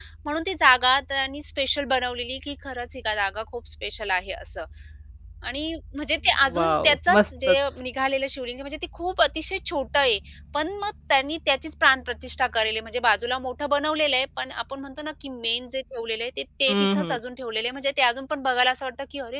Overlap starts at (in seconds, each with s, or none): 6.6 s